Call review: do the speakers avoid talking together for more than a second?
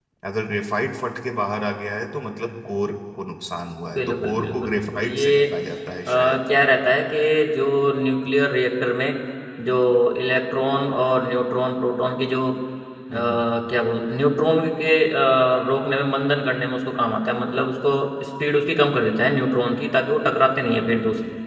No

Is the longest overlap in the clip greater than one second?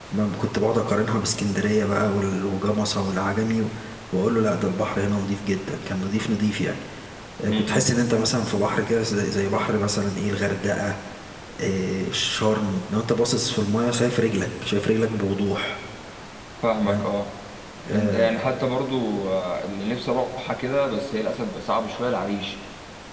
No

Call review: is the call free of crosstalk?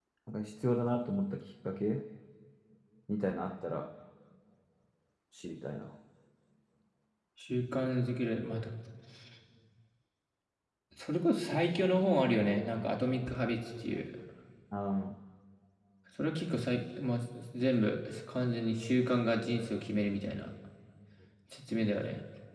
Yes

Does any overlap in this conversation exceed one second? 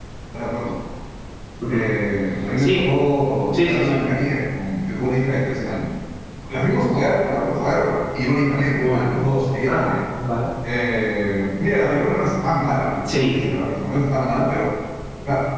No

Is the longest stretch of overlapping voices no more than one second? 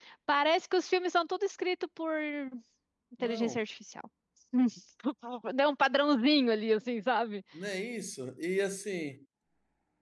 Yes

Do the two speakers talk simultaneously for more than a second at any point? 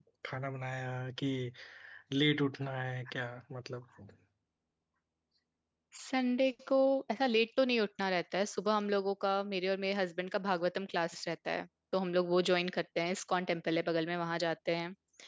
No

